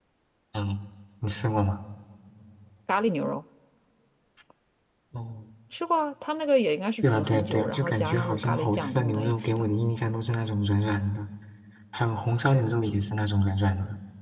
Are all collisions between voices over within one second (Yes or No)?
No